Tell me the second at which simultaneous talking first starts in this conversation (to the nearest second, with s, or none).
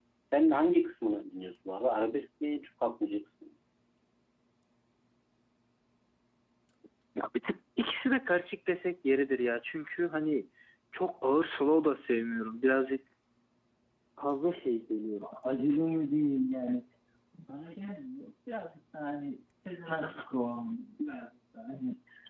none